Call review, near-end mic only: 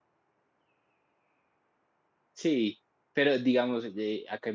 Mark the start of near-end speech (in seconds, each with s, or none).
2.3 s